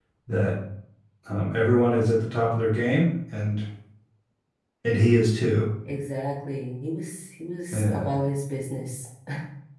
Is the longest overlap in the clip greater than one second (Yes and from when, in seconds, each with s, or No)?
No